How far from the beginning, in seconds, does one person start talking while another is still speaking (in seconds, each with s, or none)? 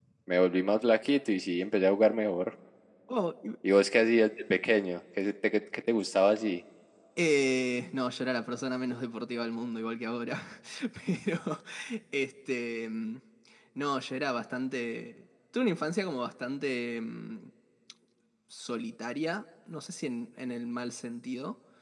none